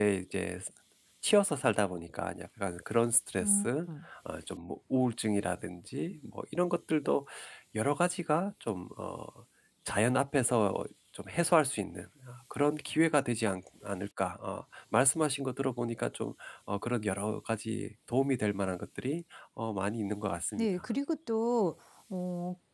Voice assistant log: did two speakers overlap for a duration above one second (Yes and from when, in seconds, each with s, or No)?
No